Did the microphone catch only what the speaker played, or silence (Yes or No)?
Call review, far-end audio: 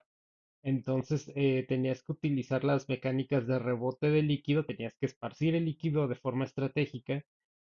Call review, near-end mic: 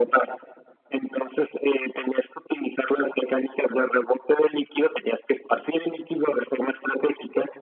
Yes